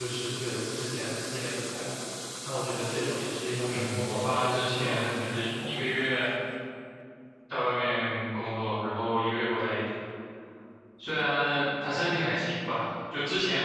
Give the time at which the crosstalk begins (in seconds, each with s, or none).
3.7 s